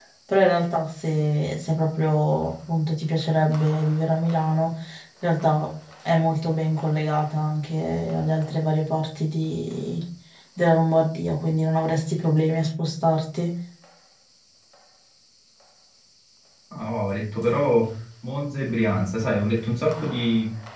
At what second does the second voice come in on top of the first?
none

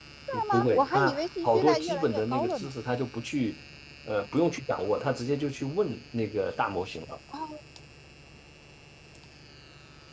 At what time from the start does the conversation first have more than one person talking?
0.5 s

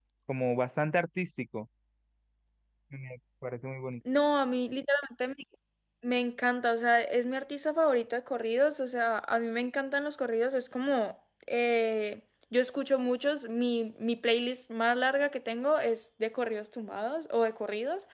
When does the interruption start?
none

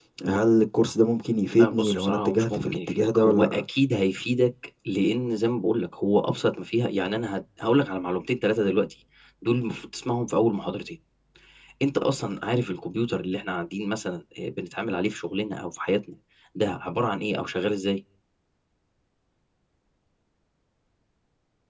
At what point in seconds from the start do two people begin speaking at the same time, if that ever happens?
1.5 s

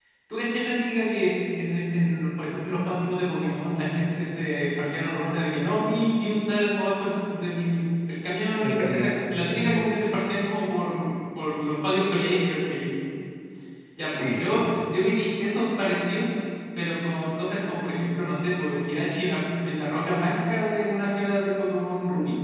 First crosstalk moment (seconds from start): 8.6 s

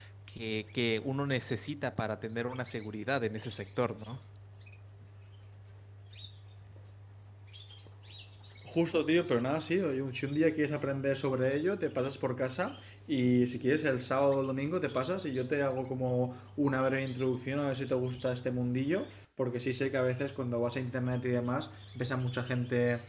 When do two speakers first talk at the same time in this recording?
none

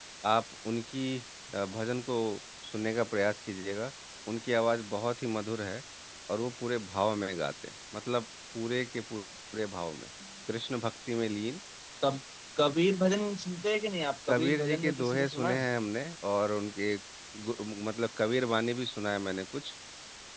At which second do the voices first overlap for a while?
14.3 s

